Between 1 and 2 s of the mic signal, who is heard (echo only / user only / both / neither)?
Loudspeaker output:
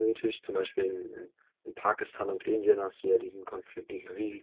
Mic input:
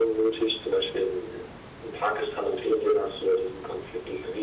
echo only